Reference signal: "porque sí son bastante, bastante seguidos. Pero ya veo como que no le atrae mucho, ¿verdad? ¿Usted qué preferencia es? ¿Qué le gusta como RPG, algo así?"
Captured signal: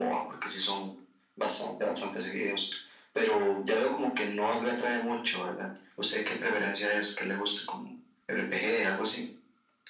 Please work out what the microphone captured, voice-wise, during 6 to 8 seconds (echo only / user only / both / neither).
echo only